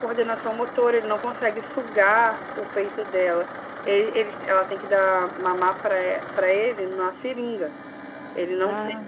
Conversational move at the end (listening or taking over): listening